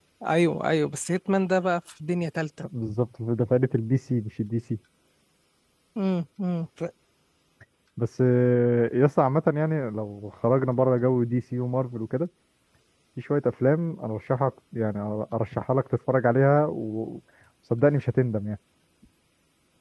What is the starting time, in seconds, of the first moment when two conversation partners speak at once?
none

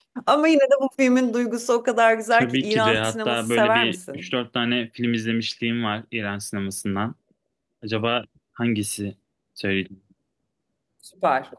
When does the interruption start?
2.3 s

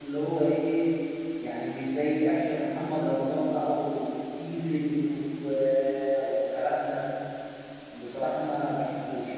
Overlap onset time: none

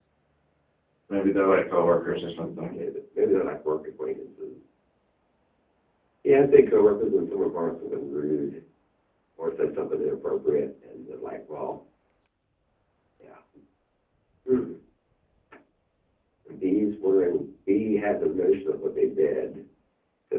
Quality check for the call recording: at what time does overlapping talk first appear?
none

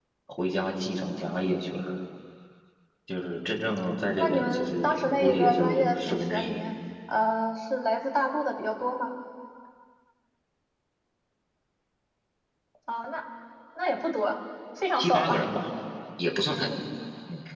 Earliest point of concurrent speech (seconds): 4.2 s

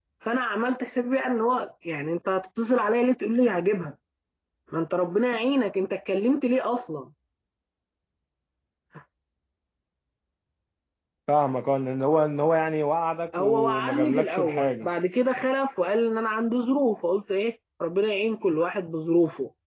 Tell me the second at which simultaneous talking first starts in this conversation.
13.3 s

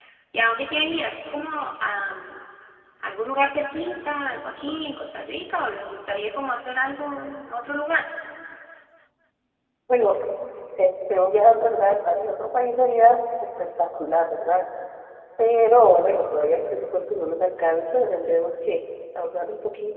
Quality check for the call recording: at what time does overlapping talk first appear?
none

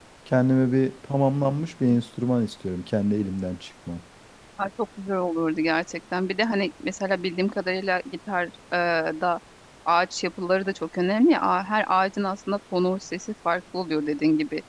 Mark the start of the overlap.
none

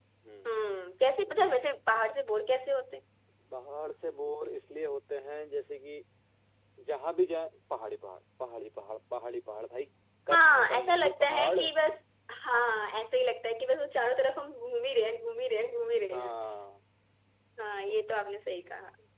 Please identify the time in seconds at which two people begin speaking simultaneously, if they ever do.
10.3 s

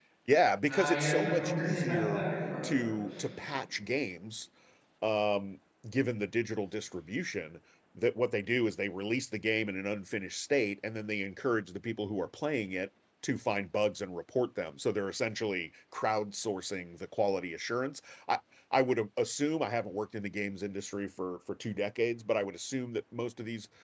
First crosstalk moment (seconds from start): 0.7 s

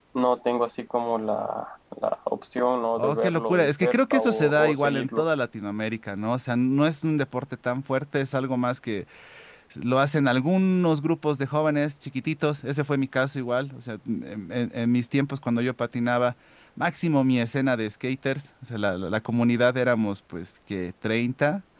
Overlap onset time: 3.0 s

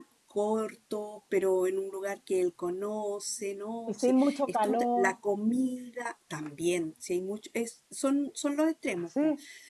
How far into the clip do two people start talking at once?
3.9 s

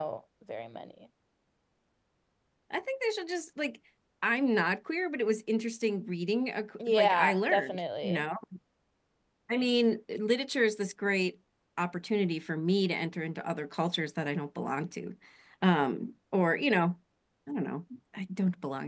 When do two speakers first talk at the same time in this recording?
6.8 s

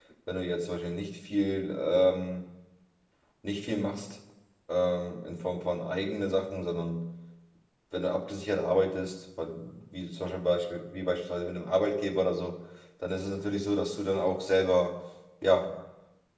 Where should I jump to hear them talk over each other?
none

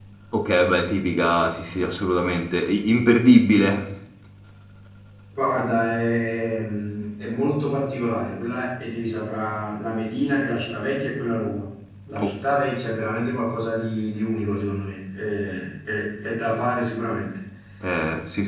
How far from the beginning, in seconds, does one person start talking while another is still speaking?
none

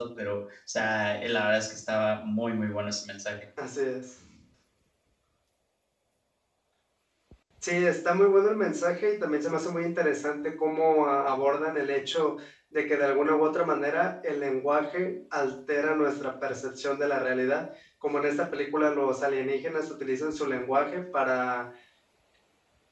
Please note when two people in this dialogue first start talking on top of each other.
none

